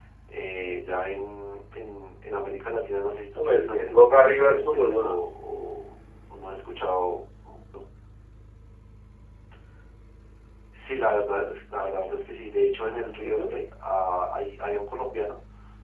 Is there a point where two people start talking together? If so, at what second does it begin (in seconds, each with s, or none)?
3.4 s